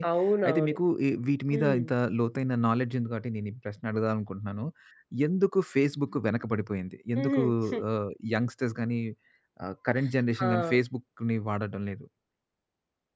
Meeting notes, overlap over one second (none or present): none